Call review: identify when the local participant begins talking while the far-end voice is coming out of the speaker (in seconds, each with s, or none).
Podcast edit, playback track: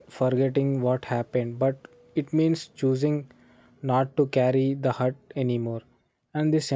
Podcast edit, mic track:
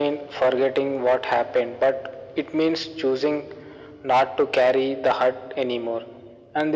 none